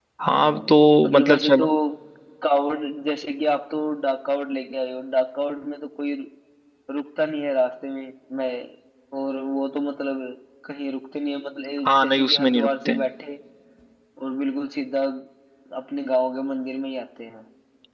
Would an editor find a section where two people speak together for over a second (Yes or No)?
Yes